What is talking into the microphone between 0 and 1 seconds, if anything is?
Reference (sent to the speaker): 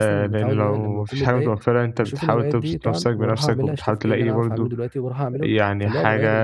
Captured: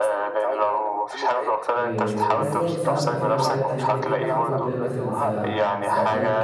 echo only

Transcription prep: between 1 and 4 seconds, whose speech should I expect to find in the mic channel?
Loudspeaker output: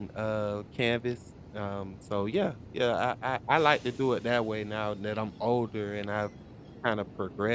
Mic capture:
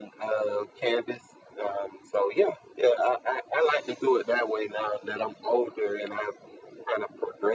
echo only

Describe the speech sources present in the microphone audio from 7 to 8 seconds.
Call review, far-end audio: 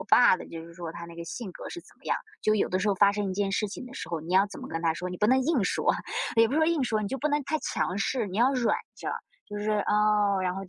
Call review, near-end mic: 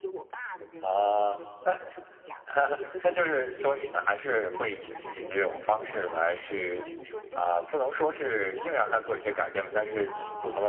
both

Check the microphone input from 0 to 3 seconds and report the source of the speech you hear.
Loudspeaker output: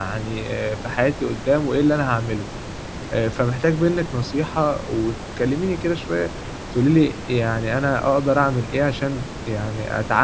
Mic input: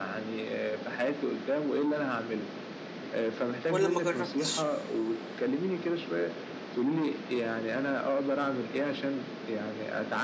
echo only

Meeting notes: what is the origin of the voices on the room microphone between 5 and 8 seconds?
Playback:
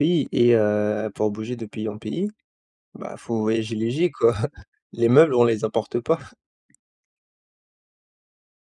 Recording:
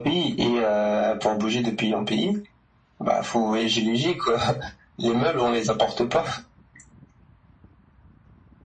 echo only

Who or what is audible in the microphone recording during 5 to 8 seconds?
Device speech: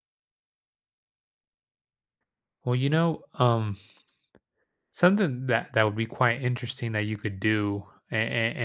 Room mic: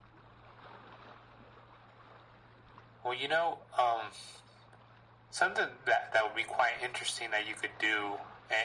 echo only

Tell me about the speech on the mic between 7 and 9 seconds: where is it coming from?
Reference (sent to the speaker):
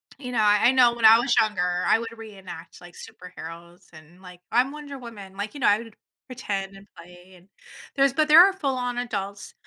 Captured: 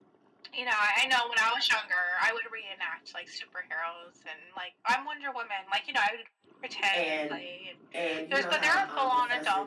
both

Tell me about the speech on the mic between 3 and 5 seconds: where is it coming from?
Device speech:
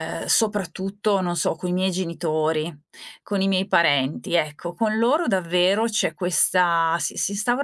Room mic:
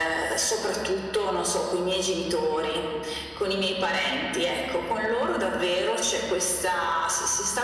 echo only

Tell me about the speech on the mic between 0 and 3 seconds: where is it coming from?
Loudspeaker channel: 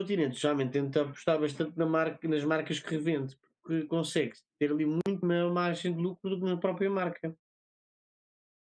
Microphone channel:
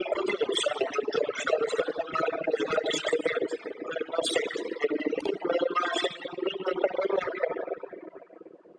echo only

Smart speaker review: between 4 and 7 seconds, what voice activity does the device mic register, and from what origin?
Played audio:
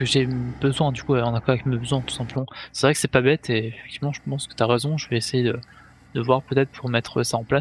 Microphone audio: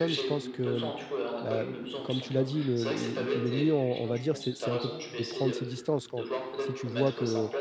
both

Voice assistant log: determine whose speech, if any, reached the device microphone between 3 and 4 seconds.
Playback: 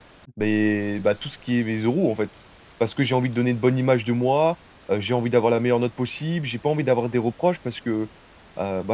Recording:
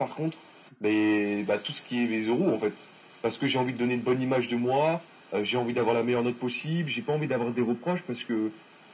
echo only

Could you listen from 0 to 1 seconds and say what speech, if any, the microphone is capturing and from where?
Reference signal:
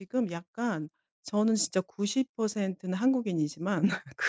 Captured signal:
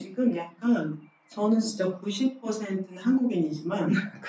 echo only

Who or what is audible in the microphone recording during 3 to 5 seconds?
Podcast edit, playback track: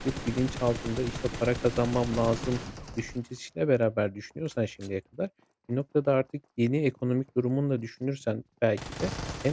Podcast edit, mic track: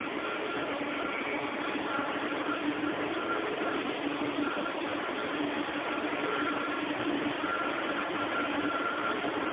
neither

